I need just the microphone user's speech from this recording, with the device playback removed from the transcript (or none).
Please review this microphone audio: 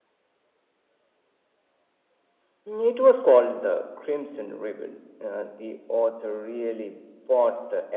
none